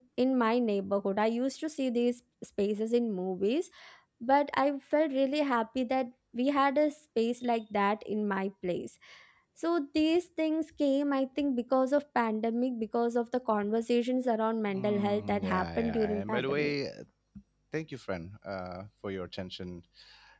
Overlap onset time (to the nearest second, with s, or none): 15 s